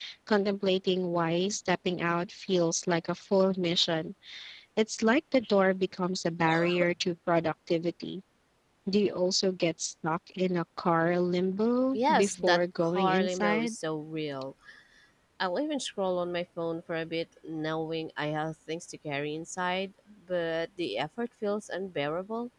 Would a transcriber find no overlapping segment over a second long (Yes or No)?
No